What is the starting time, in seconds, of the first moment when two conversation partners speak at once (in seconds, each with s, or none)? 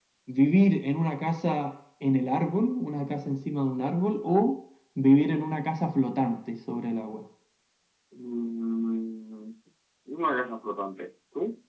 none